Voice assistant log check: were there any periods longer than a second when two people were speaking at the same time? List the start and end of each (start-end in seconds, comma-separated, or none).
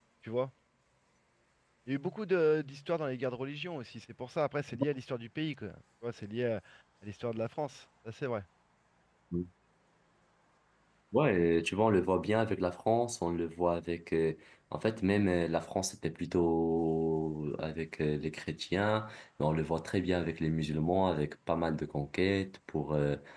none